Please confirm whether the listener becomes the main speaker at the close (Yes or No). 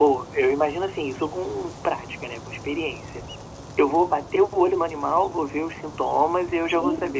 No